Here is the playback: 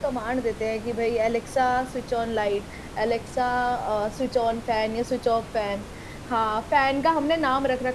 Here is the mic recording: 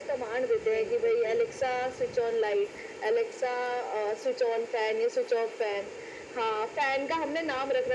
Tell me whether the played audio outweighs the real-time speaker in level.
Yes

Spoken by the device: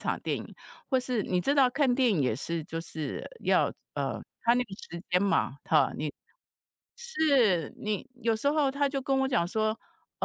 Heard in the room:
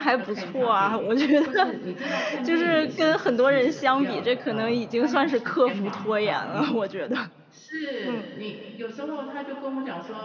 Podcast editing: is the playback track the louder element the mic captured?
No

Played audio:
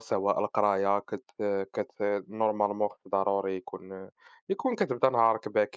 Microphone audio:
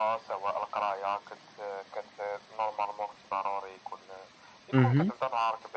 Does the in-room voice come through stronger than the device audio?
Yes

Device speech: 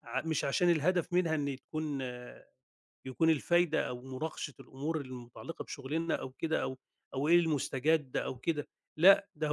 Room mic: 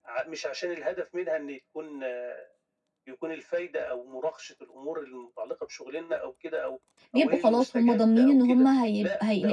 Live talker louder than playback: Yes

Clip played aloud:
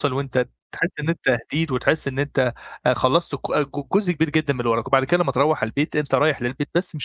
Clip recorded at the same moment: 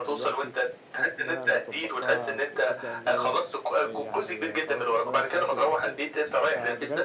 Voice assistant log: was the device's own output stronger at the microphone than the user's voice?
Yes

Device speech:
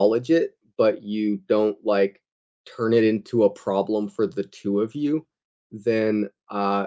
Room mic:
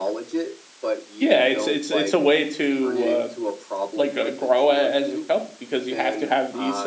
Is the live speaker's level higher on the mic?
Yes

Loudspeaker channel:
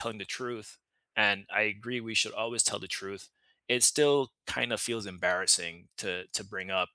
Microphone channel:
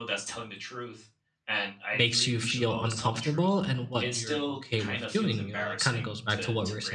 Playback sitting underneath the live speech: Yes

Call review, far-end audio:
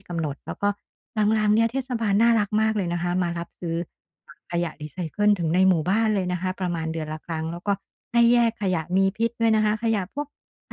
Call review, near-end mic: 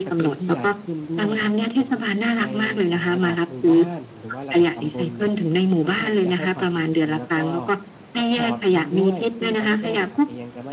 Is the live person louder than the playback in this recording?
No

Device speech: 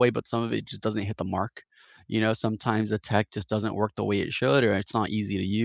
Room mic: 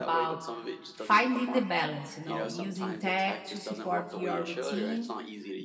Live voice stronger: Yes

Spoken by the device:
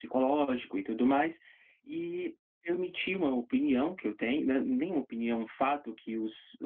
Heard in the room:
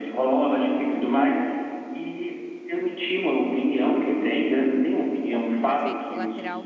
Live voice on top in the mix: No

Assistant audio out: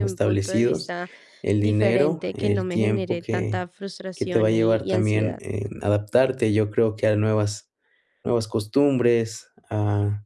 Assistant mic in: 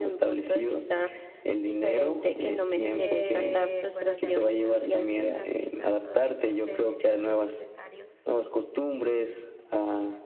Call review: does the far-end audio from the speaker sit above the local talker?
Yes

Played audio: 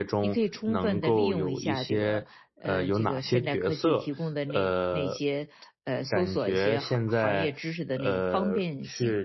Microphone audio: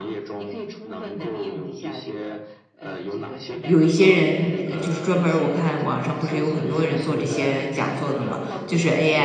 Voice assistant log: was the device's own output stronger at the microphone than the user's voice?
No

